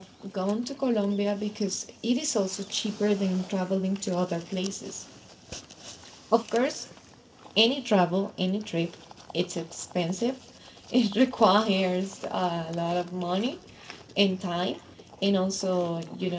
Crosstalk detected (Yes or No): No